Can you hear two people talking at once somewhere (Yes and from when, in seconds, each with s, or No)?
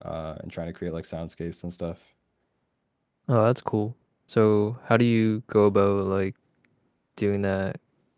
No